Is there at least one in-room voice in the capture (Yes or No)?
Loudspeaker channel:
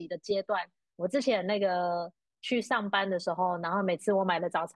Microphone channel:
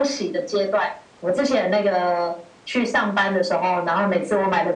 No